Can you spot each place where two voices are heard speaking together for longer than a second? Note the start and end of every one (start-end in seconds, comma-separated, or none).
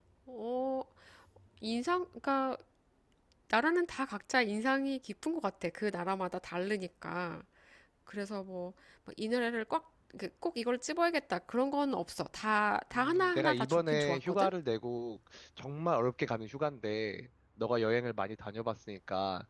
12.9-14.5